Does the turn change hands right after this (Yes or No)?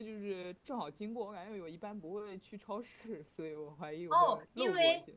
Yes